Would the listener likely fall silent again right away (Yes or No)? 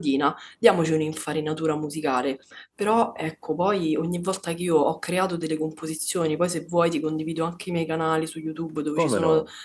Yes